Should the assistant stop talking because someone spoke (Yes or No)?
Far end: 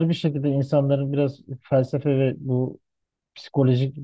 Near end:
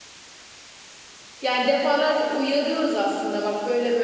Yes